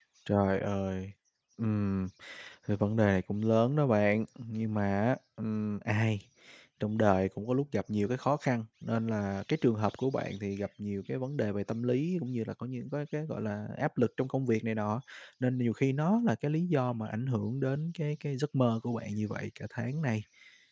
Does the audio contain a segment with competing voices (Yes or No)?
No